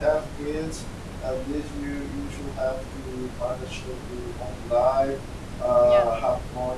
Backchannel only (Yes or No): Yes